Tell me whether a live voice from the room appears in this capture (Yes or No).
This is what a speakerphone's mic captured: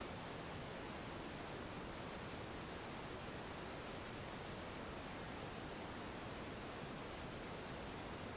No